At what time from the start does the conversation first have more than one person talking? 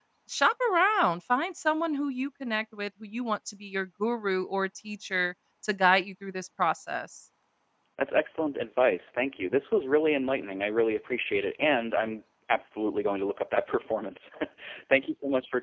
none

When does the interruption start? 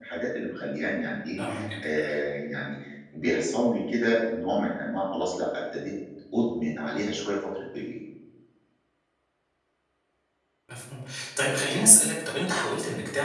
none

